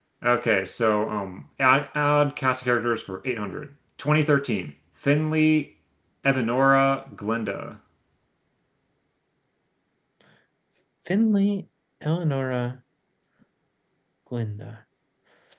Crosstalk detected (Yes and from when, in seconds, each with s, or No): No